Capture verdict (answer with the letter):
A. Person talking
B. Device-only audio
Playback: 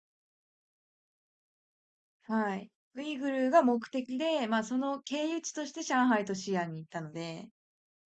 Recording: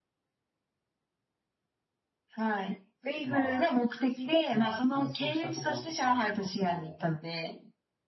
A